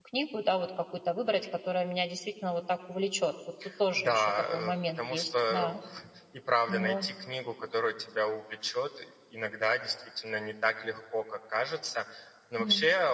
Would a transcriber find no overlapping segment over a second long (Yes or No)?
No